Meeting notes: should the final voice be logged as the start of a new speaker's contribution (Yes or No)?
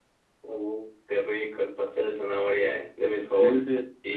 Yes